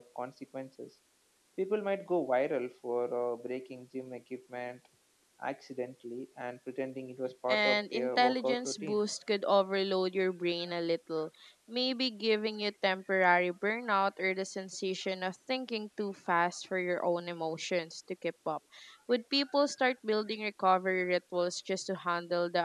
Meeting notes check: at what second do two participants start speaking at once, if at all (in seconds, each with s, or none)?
7.5 s